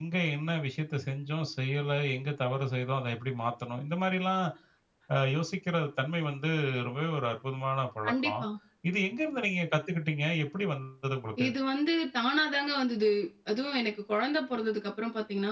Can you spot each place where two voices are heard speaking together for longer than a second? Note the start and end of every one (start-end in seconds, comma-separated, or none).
none